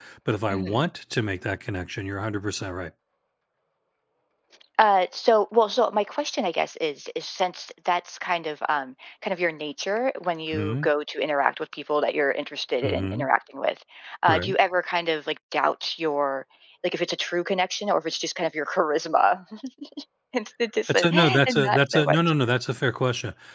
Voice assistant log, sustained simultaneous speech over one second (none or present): present